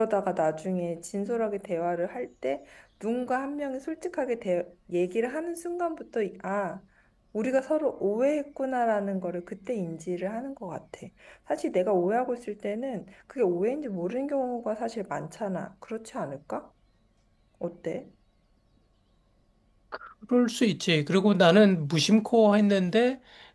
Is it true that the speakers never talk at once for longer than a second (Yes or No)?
Yes